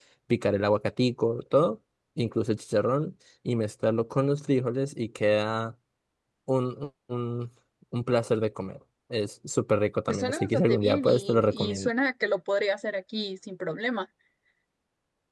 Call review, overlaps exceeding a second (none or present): present